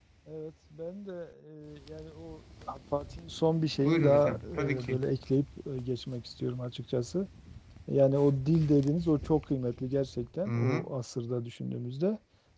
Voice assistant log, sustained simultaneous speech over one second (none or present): present